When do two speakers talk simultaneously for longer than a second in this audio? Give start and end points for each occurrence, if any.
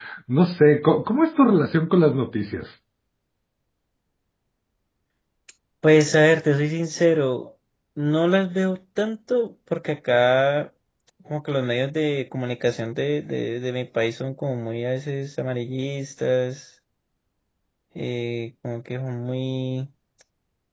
none

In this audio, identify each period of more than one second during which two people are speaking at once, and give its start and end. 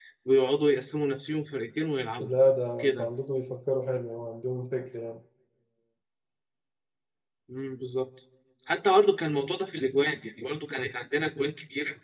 none

